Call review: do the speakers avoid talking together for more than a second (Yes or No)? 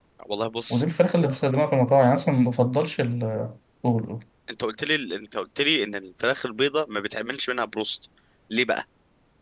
Yes